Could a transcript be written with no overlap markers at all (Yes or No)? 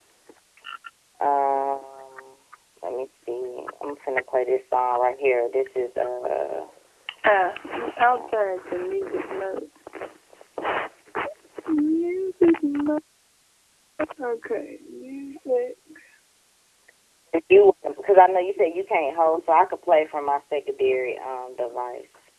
Yes